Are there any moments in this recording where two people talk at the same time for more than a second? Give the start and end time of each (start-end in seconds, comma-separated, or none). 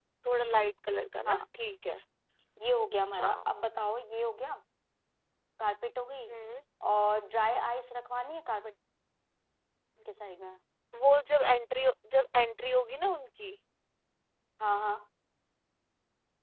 none